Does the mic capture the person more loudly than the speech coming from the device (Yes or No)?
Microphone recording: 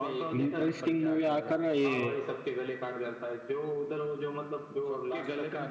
Yes